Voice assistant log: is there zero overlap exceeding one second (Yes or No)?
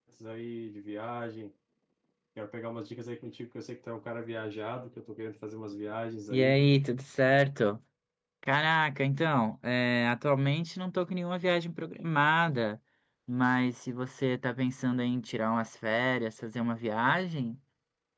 Yes